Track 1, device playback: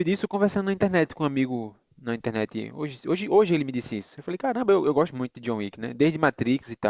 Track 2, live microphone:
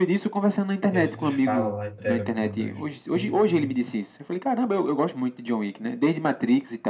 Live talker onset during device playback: 1 s

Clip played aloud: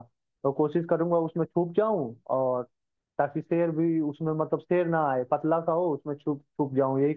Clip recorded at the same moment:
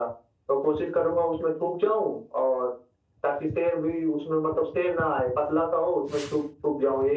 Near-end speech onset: none

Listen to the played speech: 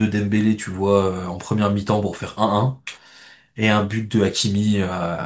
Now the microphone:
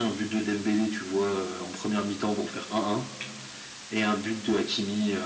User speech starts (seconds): none

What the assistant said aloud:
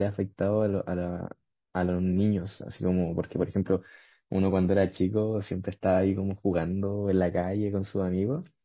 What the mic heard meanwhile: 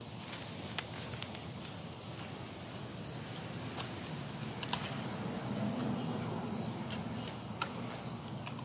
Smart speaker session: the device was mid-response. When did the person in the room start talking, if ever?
none

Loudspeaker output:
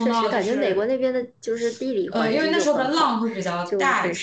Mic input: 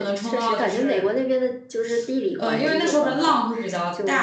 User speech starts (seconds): none

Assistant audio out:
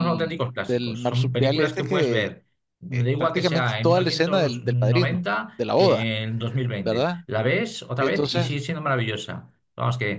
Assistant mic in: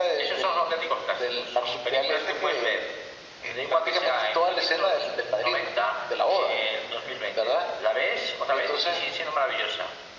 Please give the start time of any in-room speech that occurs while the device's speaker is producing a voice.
none

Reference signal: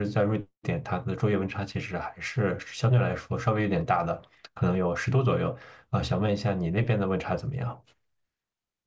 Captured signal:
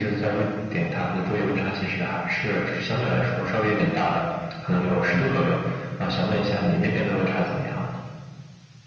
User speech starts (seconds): none

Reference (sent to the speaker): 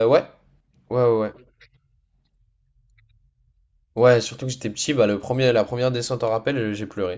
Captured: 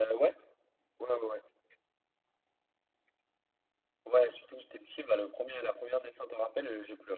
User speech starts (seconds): none

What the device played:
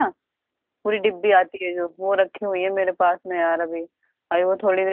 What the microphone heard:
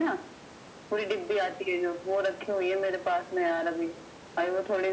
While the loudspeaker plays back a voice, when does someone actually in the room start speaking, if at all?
none

